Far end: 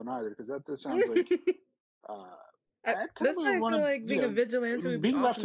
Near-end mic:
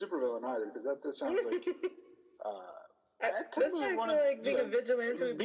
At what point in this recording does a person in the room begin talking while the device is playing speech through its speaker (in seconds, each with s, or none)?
none